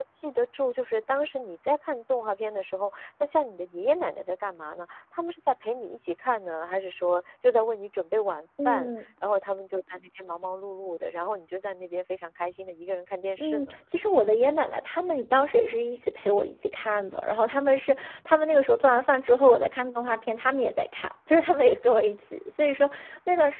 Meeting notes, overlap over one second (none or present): none